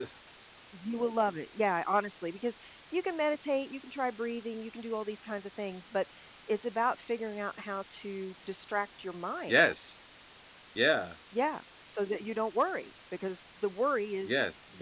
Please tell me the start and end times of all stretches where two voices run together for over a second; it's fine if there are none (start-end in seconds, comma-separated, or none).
none